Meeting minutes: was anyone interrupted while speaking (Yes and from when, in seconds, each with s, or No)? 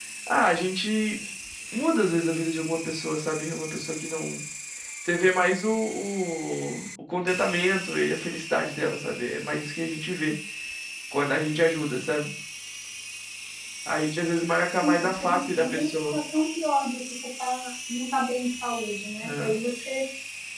Yes, from 14.8 s